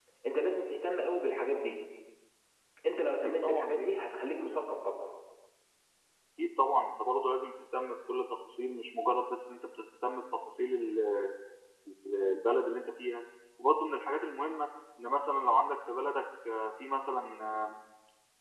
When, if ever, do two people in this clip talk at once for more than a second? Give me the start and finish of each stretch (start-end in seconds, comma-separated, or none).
3.2-4.6